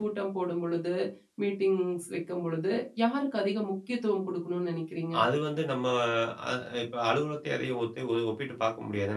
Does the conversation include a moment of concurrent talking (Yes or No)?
No